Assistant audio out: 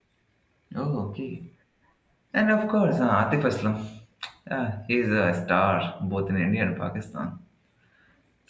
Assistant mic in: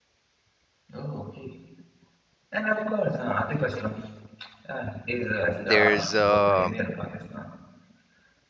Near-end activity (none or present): present